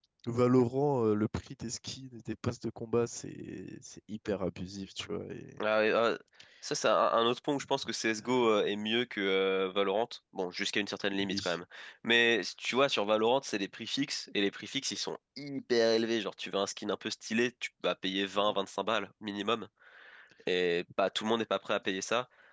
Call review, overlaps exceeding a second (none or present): none